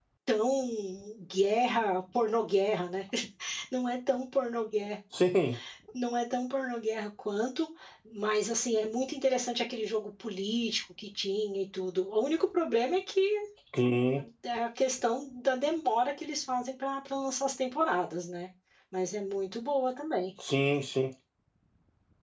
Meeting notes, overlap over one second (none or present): none